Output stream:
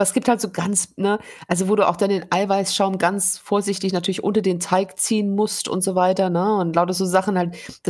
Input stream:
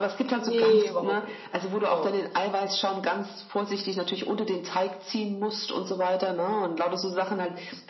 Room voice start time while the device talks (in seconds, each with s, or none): 0.4 s